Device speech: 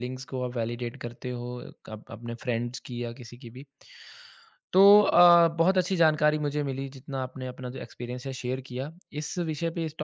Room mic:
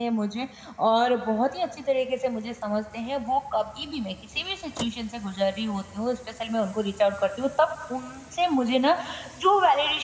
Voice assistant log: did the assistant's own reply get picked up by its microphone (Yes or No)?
No